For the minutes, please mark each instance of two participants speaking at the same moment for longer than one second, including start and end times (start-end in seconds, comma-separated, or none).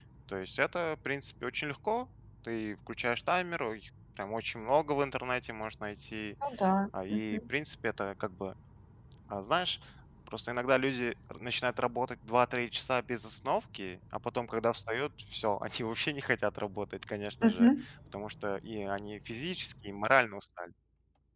none